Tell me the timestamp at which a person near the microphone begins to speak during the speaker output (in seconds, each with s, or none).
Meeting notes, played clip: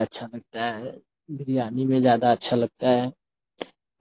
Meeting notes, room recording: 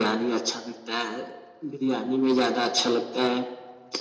none